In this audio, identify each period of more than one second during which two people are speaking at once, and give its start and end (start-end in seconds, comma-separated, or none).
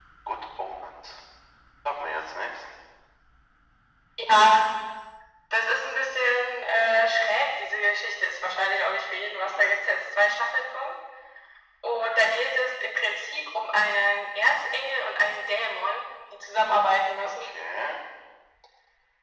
none